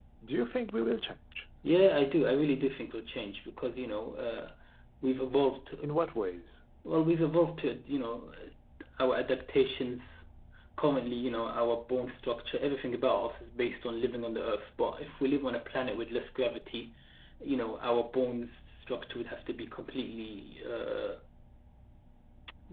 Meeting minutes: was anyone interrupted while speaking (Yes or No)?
No